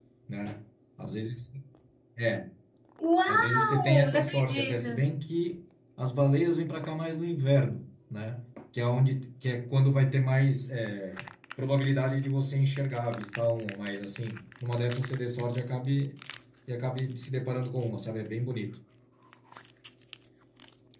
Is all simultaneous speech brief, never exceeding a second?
No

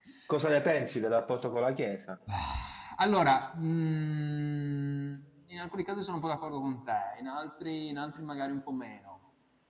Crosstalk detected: No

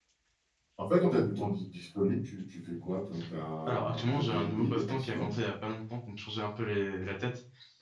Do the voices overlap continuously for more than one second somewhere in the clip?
Yes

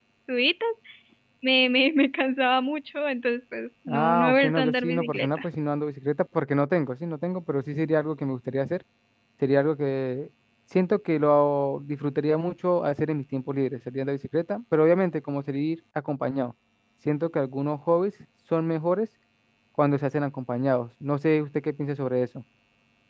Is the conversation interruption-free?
No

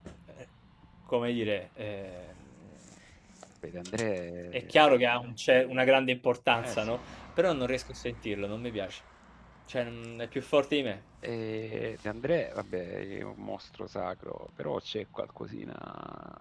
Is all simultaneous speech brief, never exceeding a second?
Yes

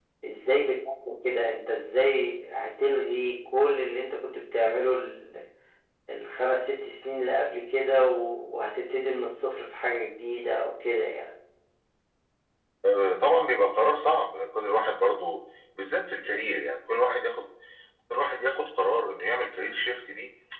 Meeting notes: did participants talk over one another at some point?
No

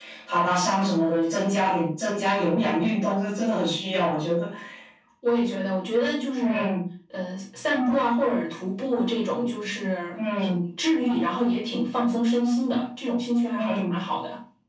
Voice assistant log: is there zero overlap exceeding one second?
Yes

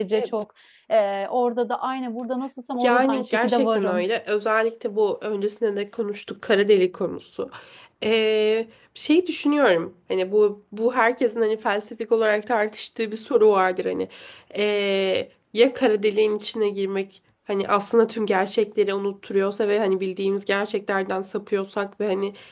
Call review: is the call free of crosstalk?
No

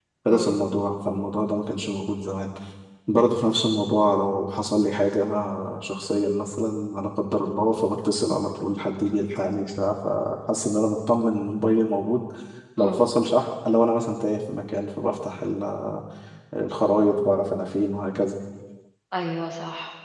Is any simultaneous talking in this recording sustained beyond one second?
No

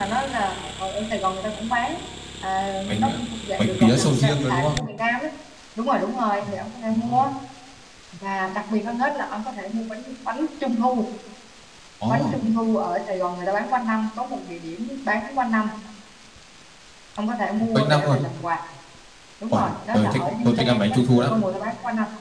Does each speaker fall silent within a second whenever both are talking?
No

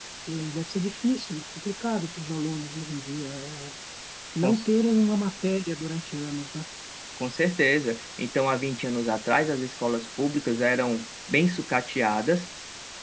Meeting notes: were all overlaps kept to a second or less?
Yes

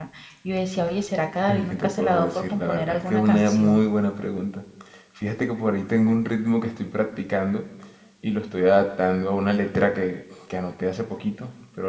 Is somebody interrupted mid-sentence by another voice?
Yes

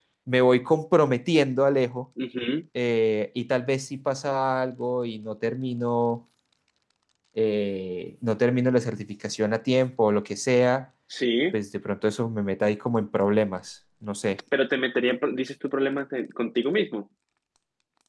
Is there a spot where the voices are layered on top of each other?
No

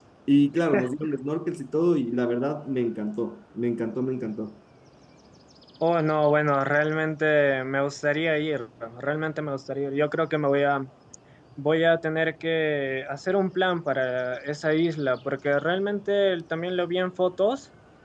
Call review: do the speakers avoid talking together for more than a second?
Yes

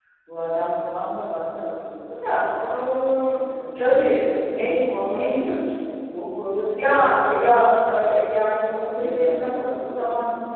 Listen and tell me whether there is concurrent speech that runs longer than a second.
Yes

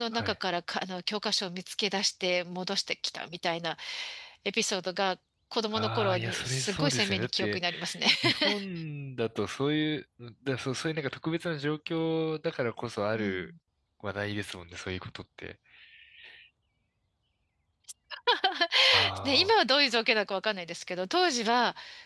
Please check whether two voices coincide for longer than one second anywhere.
Yes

